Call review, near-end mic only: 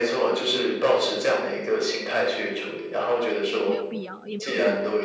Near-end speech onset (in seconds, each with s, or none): 3.6 s